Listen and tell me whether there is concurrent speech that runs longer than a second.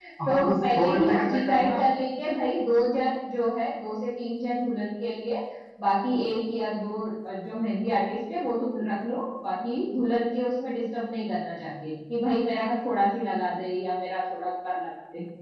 Yes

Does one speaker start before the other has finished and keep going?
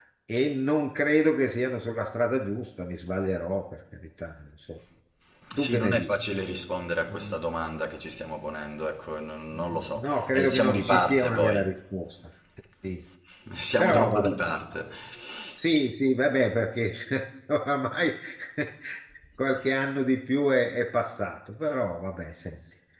Yes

